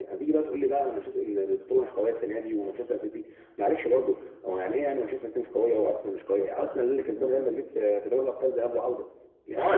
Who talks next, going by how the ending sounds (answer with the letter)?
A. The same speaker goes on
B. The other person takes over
B